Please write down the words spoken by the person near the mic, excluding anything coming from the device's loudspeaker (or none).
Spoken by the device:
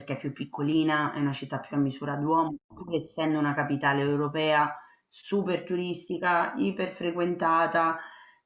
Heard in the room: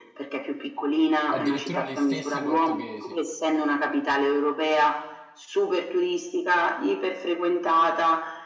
Addirittura gli stessi portoghesi.